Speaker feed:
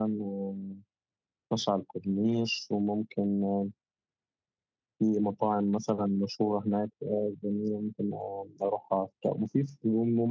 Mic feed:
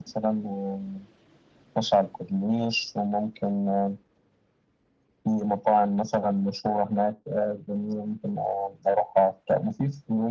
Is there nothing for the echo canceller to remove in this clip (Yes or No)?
No